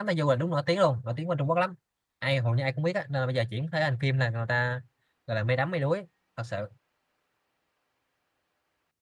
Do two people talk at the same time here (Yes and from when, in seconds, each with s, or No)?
No